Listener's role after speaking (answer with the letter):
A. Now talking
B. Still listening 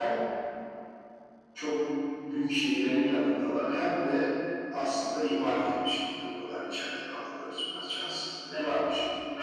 A